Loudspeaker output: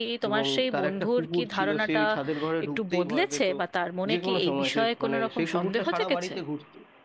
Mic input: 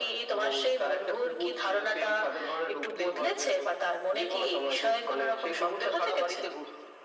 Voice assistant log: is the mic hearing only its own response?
Yes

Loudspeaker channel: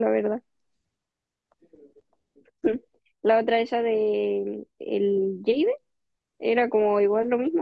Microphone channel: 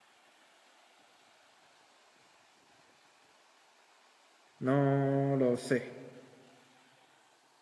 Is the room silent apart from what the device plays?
No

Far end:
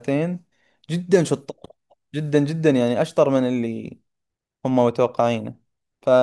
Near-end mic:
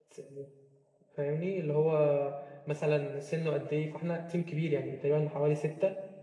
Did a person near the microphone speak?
Yes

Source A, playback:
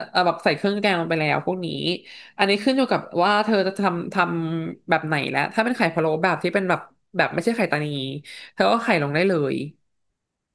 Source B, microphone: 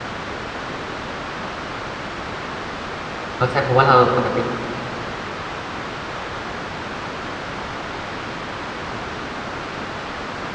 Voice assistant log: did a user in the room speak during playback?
Yes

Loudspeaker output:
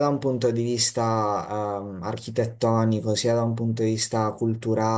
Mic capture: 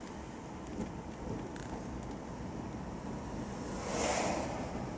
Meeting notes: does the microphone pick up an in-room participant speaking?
No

